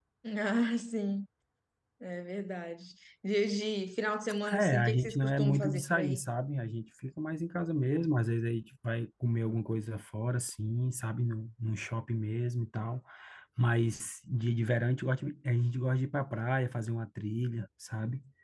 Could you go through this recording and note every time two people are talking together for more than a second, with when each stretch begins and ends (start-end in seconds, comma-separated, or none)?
4.5-6.2